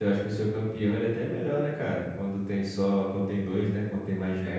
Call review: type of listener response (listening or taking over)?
taking over